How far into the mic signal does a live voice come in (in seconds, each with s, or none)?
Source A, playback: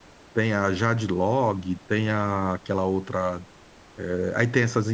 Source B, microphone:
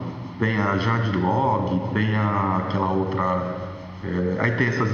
none